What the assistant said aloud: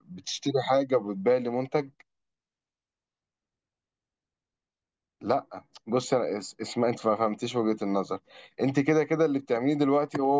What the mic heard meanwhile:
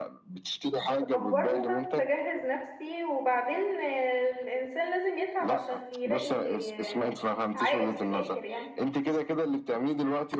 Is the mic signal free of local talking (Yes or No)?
No